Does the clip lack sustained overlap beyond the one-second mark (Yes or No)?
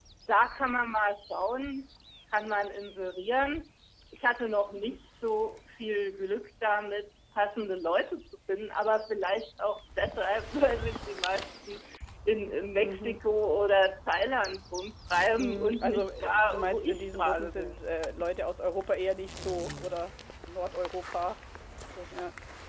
No